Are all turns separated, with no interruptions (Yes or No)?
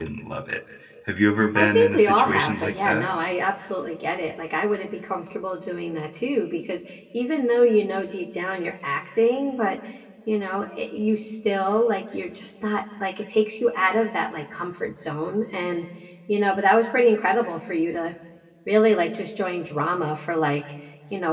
No